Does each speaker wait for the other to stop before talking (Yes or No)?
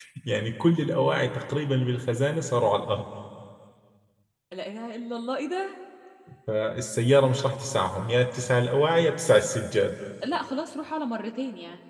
Yes